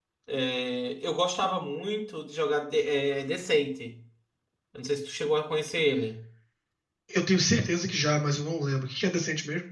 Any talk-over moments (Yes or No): No